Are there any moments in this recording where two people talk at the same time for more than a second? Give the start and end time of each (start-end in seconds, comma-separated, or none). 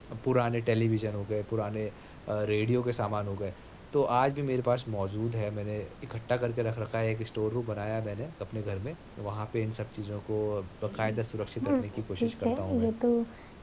11.6-12.9